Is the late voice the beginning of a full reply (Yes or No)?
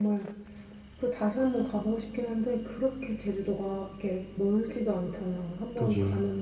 No